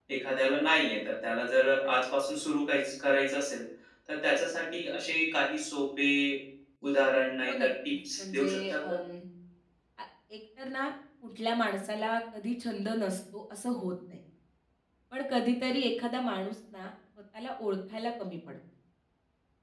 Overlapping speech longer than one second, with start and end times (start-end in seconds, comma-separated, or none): 7.4-9.0